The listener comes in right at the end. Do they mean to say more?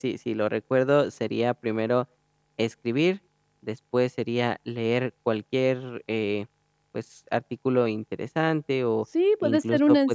Yes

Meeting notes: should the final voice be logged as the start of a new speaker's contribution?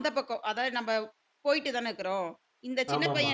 No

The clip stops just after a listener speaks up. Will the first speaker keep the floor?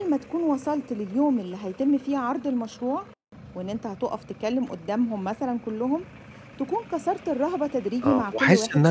No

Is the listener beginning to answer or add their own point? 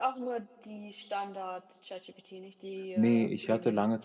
Yes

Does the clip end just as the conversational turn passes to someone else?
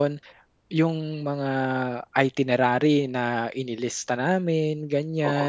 No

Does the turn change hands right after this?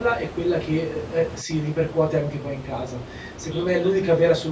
No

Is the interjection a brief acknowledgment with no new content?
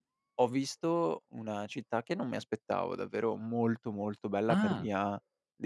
Yes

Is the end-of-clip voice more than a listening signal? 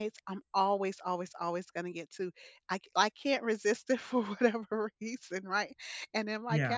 No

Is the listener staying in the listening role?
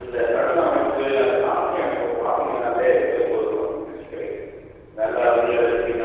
Yes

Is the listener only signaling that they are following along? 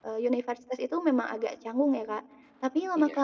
Yes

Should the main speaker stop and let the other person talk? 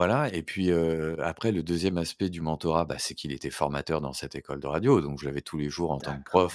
No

